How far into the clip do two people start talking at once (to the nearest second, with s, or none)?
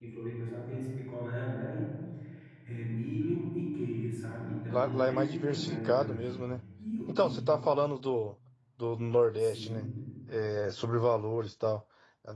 5 s